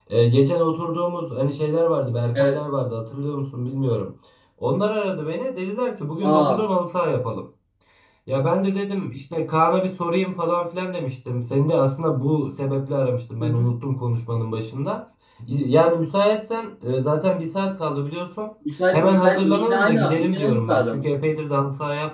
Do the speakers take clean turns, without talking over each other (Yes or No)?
No